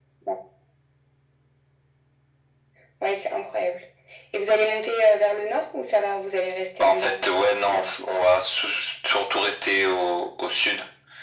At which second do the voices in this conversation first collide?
6.8 s

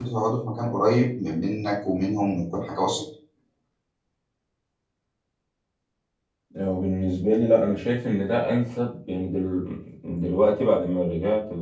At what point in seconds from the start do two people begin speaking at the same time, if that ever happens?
none

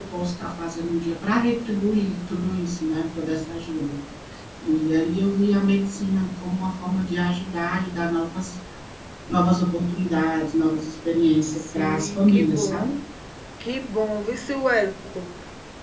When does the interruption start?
11.6 s

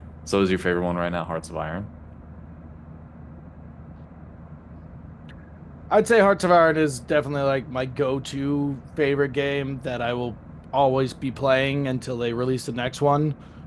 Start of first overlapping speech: none

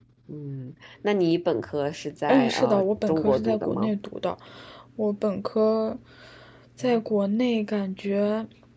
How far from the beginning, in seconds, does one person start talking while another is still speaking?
2.3 s

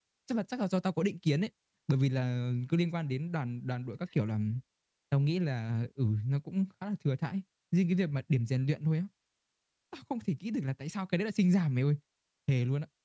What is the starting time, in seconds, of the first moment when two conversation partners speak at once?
none

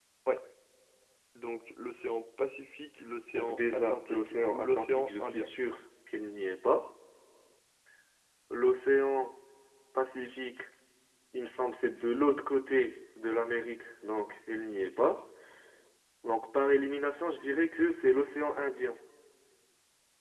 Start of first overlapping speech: 3.3 s

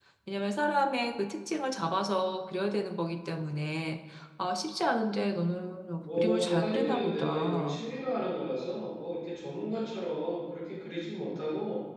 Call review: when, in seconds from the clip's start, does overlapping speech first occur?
6.0 s

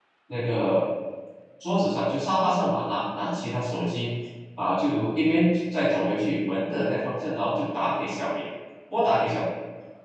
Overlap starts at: none

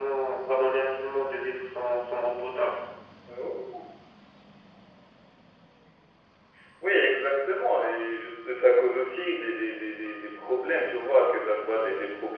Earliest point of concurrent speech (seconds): none

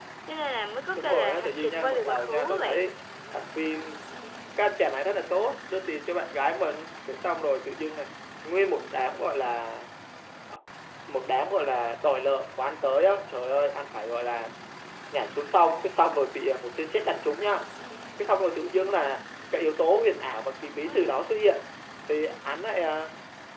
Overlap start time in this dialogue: 1.0 s

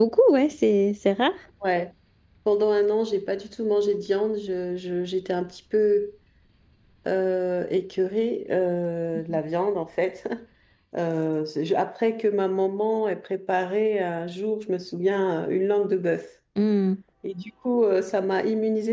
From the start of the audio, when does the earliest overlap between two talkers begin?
none

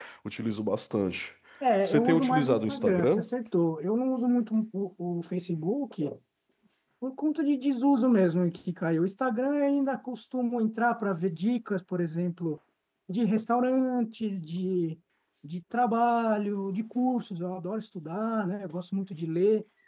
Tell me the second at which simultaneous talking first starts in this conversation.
1.8 s

